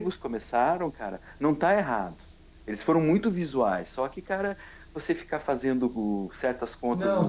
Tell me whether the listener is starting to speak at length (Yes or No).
Yes